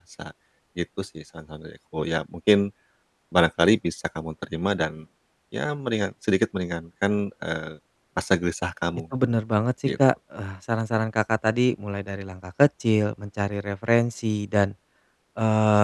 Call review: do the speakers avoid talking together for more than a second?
Yes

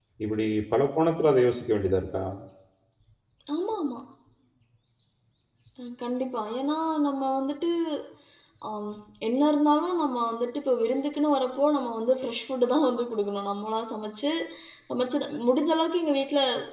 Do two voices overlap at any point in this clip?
No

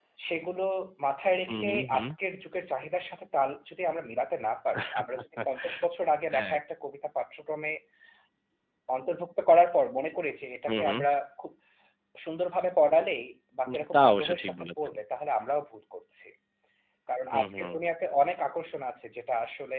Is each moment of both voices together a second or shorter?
No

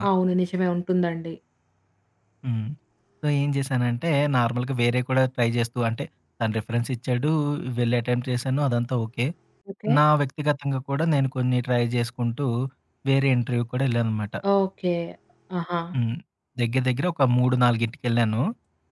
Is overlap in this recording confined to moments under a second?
Yes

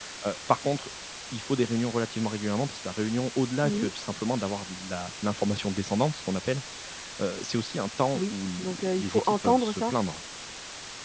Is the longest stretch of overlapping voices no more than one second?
No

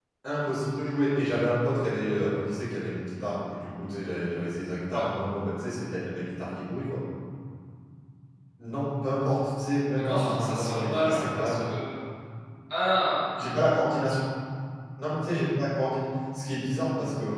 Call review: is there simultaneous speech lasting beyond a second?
Yes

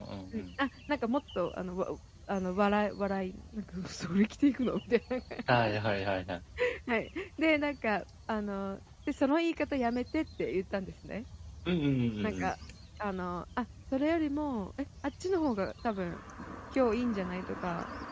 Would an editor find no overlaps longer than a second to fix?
Yes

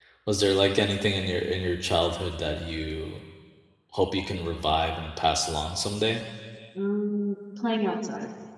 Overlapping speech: No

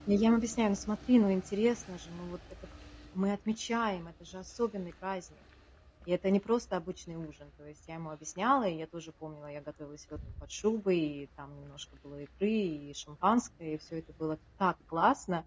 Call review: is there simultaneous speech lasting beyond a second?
No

